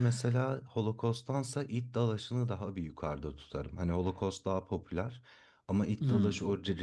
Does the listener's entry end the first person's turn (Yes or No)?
No